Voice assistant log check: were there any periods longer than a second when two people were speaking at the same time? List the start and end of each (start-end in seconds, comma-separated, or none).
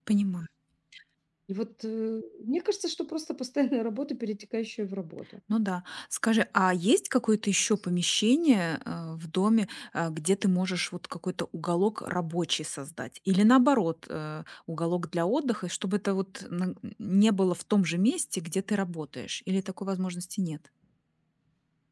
none